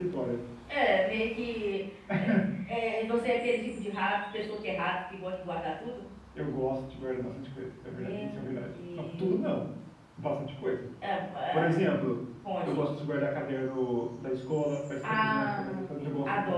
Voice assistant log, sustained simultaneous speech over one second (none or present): present